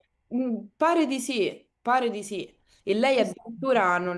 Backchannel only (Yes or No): Yes